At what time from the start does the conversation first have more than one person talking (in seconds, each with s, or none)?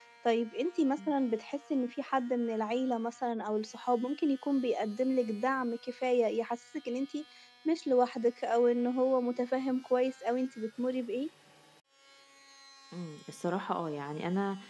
none